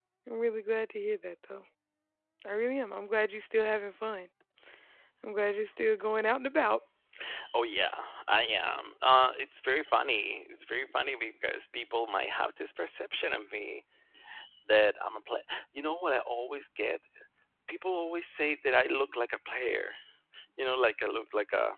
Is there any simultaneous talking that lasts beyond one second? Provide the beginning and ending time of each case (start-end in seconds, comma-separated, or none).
none